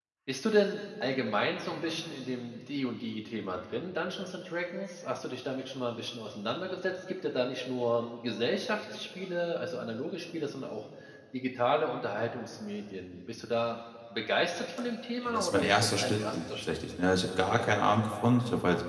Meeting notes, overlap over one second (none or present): present